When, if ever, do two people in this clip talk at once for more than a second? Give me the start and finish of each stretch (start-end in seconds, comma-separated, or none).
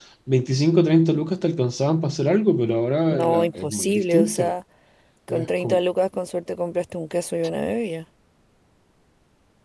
3.2-4.5